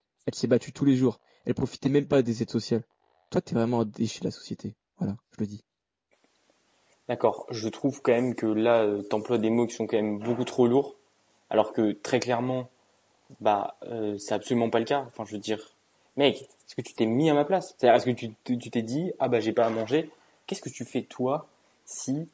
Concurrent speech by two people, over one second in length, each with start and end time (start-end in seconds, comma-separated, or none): none